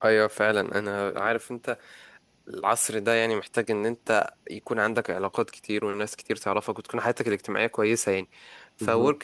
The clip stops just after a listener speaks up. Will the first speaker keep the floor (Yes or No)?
Yes